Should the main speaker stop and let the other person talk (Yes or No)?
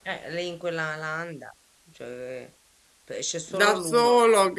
Yes